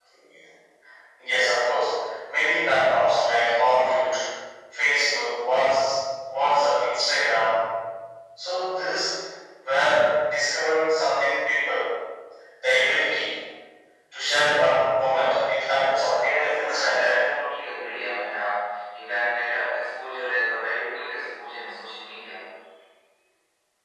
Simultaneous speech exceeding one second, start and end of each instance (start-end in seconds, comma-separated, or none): 16.0-17.2